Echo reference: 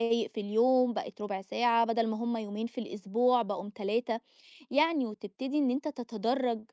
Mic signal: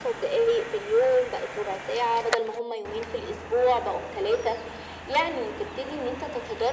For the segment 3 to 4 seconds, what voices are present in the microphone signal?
echo only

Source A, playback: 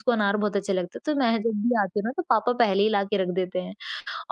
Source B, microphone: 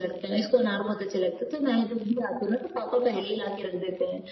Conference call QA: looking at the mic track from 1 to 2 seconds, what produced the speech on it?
echo only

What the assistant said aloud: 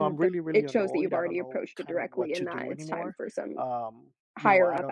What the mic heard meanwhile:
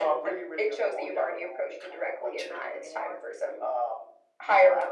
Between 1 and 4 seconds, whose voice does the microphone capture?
echo only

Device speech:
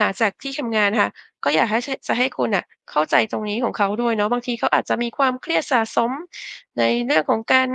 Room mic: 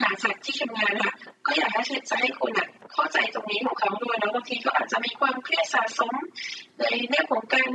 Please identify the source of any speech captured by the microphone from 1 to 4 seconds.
echo only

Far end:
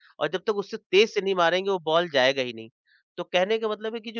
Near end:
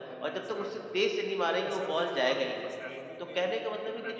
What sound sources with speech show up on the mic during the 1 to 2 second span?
both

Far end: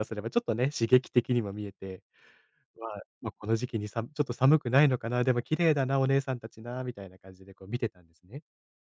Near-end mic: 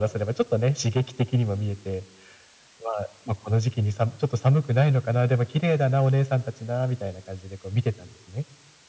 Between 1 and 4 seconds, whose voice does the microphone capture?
echo only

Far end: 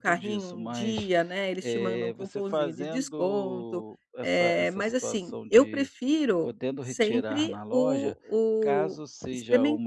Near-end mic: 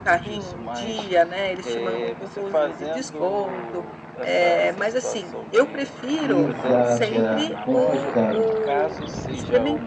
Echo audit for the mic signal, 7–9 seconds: both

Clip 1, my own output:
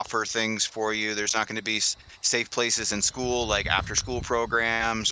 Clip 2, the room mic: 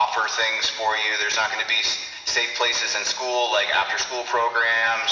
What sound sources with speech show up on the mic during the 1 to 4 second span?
echo only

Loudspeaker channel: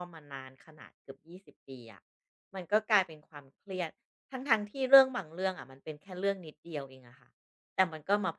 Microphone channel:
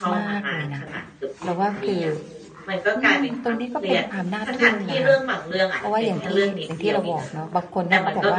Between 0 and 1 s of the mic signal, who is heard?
both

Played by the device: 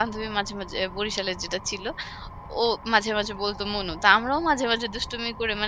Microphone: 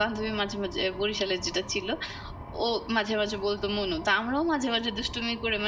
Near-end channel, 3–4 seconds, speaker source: echo only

